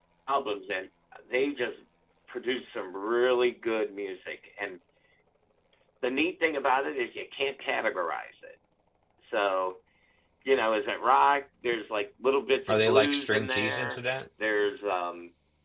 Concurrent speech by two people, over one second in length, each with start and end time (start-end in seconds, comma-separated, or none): 12.7-14.0